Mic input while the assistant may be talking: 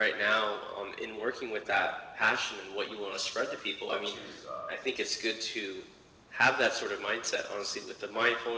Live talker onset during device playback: 3.9 s

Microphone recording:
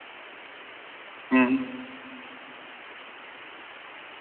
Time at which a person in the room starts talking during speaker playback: 1.3 s

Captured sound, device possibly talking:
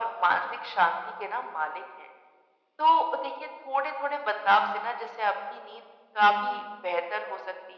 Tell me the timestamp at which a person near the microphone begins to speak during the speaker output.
none

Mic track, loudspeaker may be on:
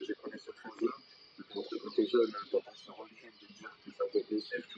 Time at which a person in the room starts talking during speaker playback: none

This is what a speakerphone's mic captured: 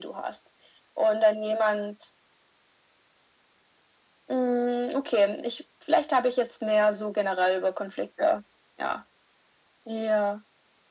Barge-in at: none

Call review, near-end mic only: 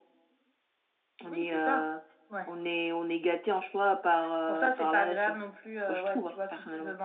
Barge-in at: none

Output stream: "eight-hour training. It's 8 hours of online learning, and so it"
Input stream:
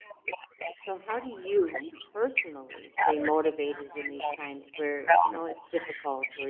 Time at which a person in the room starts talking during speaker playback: 0.7 s

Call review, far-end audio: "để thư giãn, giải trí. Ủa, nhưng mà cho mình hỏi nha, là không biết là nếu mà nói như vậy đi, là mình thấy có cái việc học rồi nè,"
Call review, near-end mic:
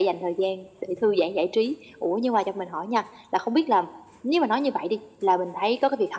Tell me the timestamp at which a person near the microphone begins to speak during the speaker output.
none

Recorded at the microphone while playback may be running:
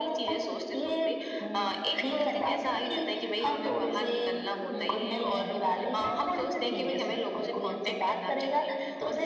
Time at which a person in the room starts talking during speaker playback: none

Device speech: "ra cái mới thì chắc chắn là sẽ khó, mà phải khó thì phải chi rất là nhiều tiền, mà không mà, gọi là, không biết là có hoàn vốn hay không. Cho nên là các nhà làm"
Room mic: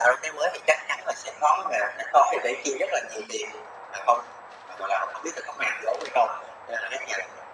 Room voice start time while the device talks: none

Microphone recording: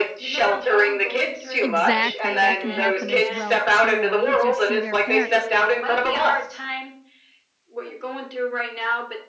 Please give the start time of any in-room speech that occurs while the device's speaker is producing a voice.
1.6 s

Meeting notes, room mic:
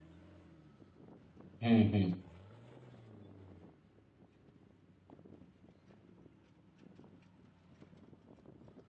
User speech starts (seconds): 1.6 s

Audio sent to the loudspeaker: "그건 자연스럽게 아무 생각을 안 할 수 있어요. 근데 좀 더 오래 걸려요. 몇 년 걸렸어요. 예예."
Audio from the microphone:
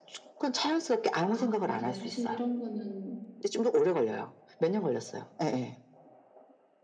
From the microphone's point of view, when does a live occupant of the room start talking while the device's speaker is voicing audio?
1.2 s

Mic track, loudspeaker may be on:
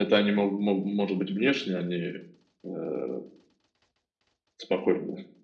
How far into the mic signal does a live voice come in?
none

